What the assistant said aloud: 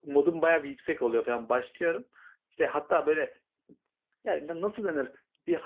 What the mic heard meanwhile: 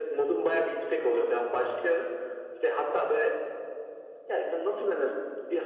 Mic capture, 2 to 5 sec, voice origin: echo only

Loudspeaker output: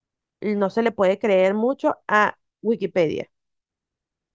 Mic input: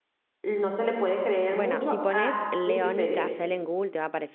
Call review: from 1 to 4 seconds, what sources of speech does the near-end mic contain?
both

